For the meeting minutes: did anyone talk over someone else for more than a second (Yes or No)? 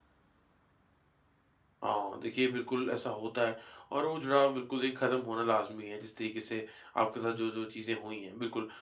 No